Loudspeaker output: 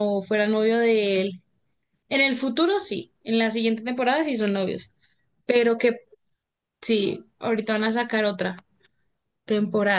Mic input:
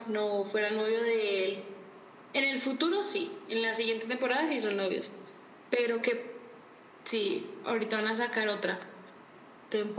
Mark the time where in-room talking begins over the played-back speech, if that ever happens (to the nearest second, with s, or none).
none